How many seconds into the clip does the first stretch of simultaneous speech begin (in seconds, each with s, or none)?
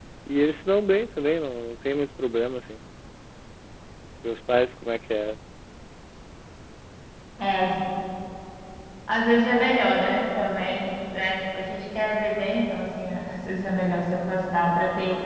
none